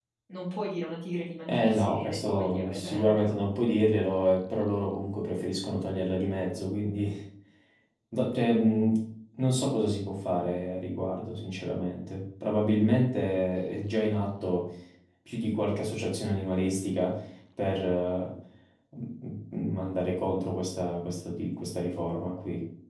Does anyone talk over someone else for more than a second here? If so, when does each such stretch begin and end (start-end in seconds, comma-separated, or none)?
1.5-3.4